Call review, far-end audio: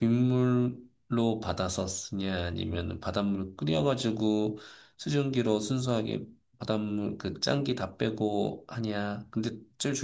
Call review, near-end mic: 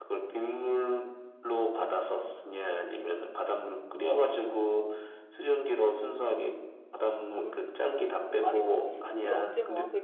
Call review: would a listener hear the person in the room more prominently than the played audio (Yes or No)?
No